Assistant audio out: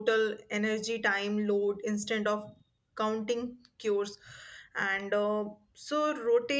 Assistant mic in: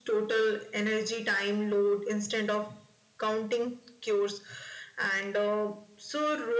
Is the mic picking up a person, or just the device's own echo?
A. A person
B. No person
B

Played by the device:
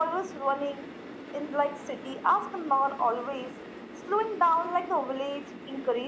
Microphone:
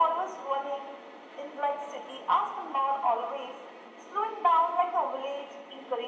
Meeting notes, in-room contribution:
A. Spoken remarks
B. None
B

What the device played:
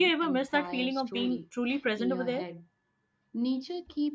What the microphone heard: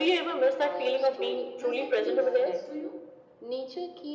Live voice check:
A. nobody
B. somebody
B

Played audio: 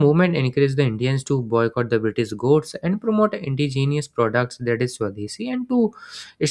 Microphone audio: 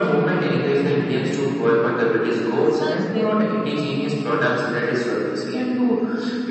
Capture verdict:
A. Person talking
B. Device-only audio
A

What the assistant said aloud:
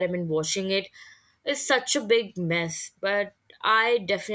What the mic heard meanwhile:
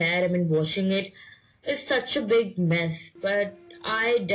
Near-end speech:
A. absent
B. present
A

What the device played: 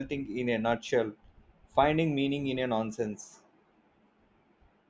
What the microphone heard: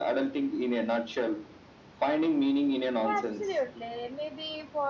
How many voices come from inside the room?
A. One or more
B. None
A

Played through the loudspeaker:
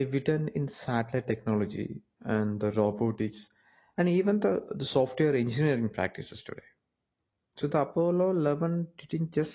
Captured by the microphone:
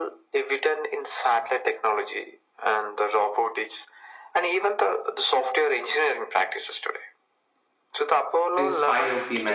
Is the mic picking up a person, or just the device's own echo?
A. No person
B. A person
B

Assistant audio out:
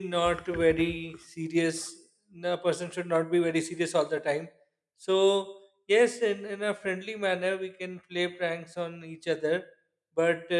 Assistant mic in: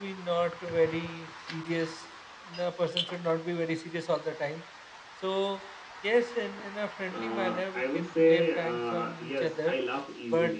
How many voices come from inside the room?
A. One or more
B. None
A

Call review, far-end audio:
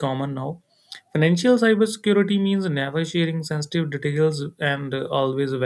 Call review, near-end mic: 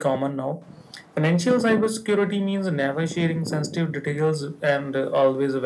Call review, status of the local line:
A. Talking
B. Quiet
B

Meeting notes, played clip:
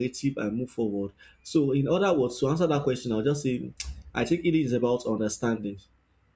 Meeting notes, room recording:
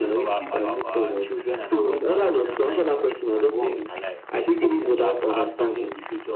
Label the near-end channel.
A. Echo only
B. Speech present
B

